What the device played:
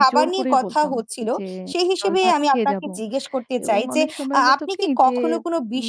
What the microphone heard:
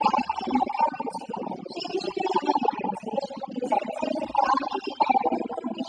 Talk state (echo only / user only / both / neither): echo only